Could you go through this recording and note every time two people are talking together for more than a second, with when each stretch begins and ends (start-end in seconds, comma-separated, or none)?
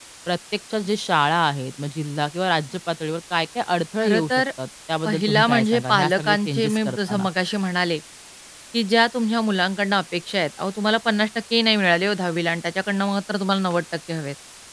5.0-7.2